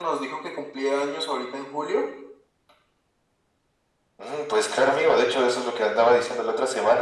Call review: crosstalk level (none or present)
none